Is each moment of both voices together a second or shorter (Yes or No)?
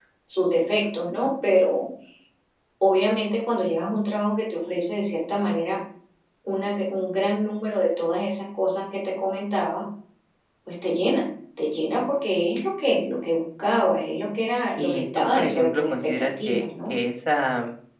No